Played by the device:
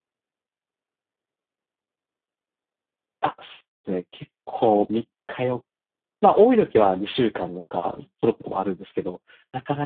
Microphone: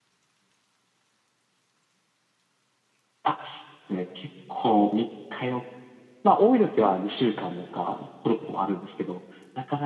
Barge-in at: none

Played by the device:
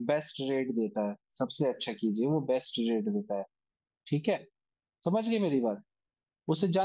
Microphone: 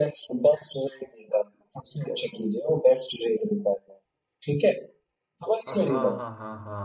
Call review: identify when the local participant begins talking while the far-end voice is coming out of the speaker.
5.7 s

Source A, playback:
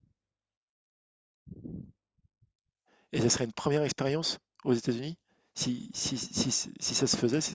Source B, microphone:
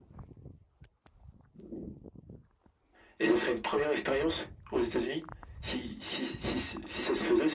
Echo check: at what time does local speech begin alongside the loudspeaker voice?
none

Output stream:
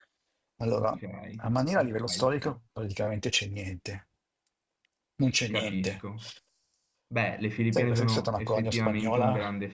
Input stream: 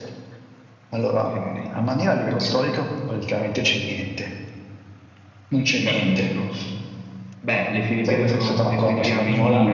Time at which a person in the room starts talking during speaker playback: 8.8 s

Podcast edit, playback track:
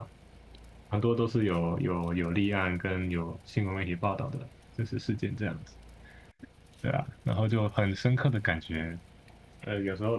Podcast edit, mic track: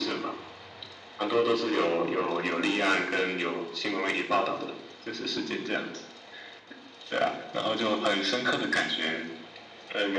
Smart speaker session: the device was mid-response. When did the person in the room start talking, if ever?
none

